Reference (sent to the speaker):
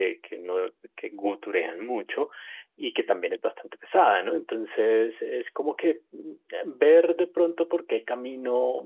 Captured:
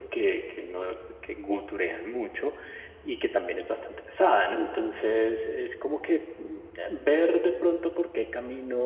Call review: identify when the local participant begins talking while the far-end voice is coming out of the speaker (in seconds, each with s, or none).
none